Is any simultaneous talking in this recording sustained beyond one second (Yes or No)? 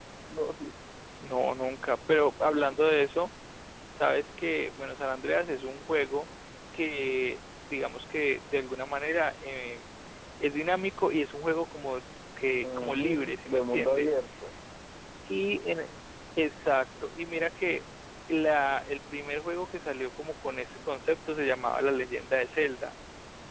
Yes